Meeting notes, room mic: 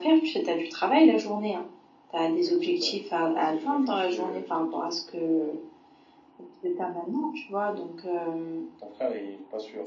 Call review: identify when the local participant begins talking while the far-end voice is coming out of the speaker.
none

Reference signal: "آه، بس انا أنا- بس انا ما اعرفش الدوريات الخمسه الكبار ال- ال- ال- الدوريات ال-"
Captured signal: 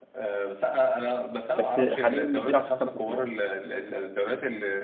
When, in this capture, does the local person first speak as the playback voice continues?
1.6 s

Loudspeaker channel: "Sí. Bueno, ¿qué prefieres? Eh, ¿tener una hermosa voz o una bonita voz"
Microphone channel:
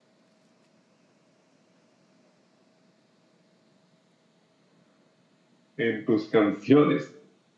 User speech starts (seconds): 5.8 s

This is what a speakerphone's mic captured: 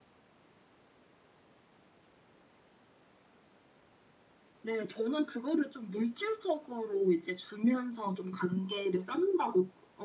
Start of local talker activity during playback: none

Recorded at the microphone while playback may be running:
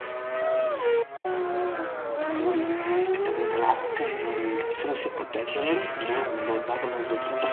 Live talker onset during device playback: none

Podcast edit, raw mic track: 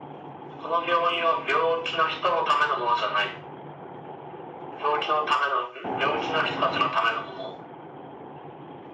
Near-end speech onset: none

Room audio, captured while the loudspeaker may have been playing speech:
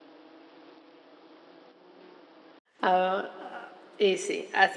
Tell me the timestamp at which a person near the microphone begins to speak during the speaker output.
2.8 s

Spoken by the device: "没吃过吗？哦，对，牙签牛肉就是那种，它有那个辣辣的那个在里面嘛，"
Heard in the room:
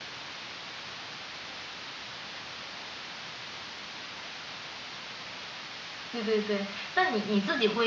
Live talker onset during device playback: 6.1 s

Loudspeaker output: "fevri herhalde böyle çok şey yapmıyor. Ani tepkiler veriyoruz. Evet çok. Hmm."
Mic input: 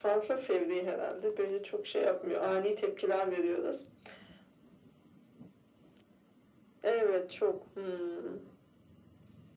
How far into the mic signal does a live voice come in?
none

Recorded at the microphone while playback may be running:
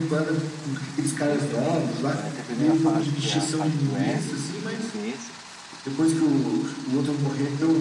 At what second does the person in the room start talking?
1.2 s

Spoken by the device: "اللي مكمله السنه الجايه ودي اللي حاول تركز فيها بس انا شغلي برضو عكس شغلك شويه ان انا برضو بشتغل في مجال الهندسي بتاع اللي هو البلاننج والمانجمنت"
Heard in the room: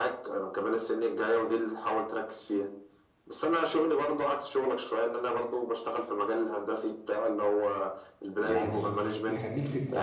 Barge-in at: 8.4 s

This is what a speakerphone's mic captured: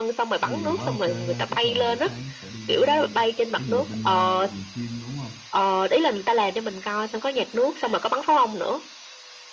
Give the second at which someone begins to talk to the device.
0.4 s

